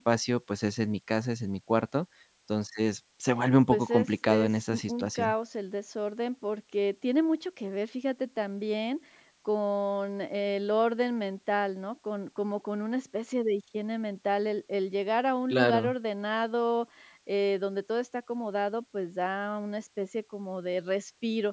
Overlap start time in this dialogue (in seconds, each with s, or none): 3.7 s